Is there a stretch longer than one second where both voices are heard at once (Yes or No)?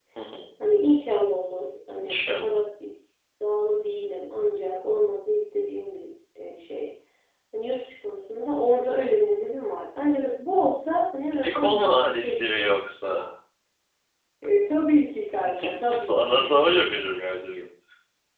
Yes